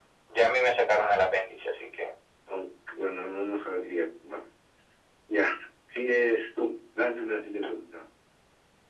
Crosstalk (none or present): none